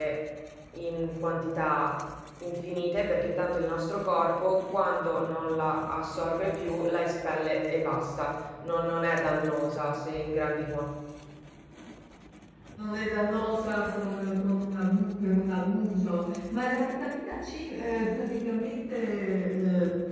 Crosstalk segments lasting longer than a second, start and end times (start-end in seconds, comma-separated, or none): none